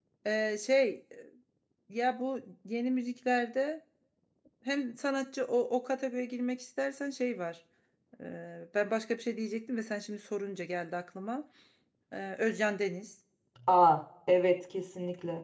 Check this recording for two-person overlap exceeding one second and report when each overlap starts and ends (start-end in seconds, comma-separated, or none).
none